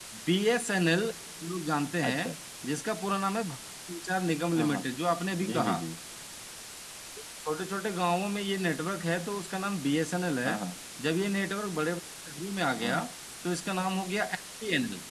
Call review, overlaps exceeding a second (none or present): none